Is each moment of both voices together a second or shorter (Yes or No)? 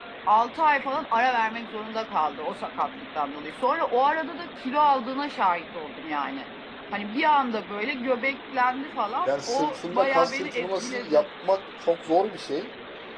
No